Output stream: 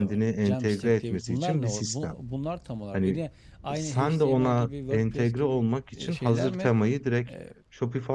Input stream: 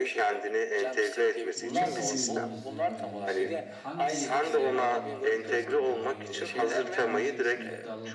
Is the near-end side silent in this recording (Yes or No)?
No